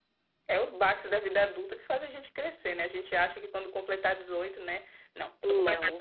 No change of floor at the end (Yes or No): Yes